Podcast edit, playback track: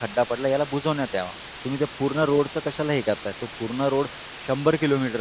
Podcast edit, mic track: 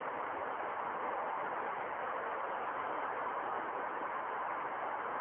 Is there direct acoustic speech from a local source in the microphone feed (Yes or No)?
No